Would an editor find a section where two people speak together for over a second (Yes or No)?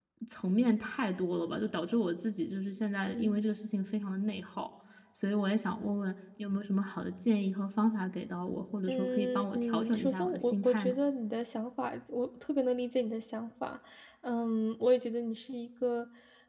Yes